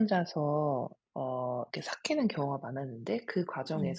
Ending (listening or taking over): listening